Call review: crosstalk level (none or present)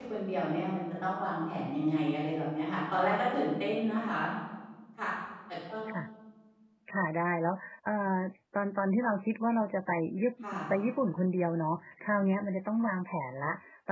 none